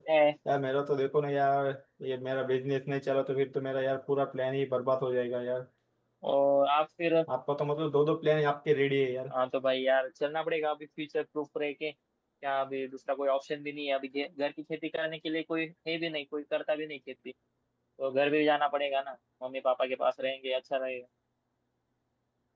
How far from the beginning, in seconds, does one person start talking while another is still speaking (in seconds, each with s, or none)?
none